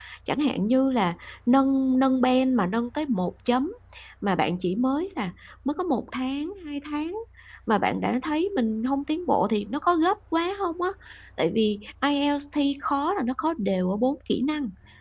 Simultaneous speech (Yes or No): No